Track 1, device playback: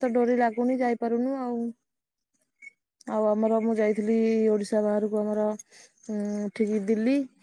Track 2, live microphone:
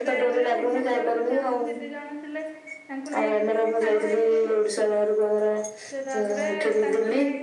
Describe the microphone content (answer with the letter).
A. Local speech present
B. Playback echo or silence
A